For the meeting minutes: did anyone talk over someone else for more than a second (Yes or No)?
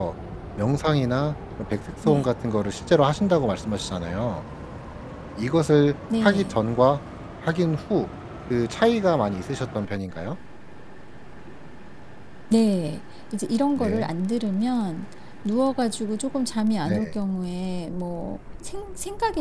No